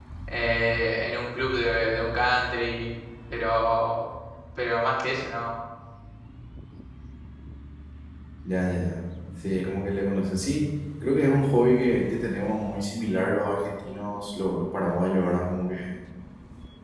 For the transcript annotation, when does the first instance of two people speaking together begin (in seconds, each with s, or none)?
none